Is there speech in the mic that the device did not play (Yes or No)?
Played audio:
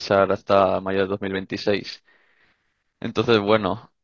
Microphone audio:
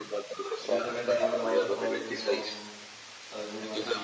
Yes